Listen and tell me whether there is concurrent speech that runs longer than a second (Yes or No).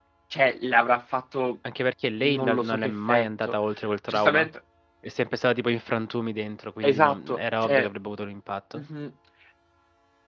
Yes